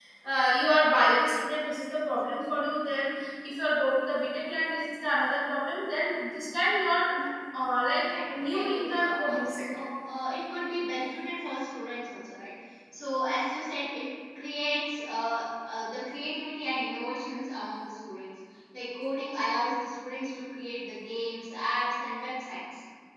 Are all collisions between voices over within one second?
No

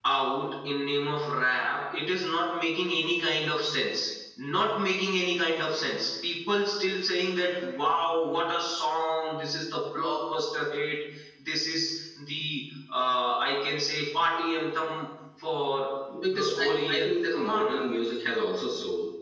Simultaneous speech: Yes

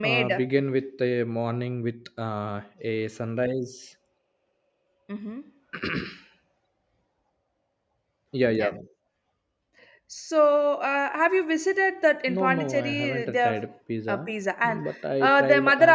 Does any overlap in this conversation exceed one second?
Yes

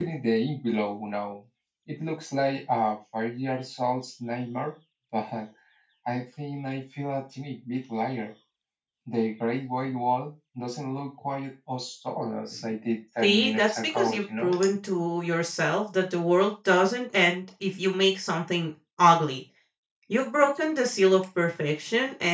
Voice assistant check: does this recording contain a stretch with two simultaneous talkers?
Yes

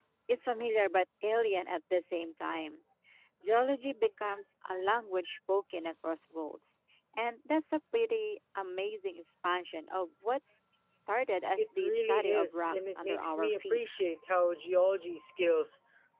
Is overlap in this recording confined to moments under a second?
No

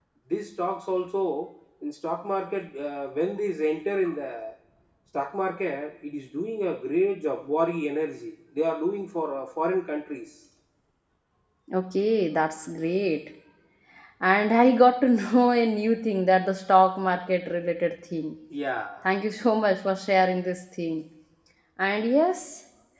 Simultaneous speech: No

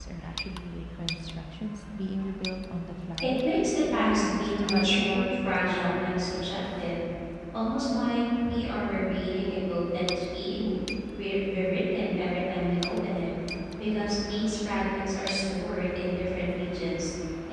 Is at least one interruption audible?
Yes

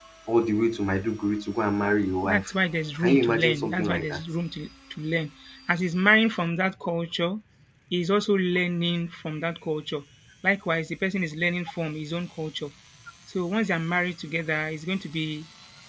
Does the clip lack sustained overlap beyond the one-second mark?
No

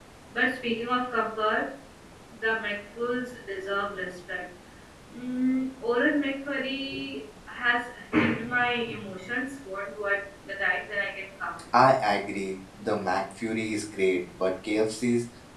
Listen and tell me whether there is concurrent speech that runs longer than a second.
No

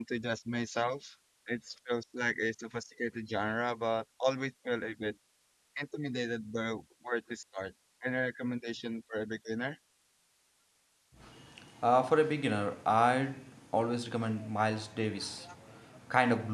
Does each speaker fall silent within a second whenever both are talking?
Yes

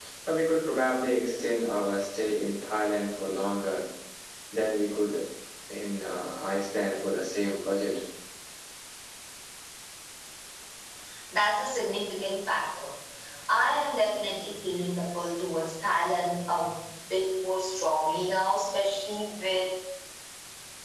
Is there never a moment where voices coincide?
Yes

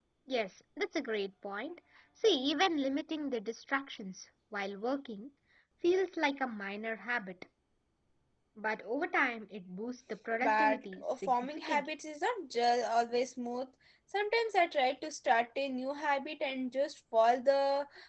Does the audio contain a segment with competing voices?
Yes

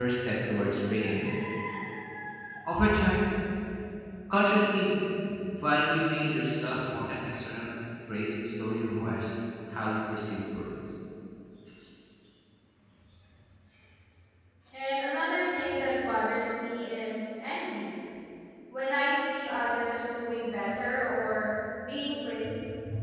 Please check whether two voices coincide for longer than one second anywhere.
No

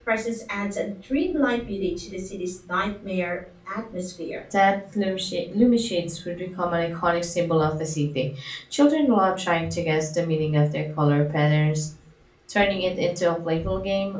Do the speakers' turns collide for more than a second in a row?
No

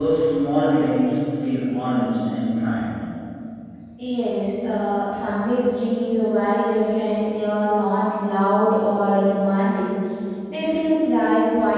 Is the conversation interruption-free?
Yes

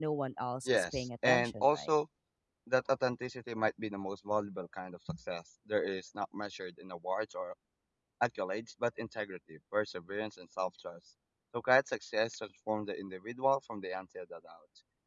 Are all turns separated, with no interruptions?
No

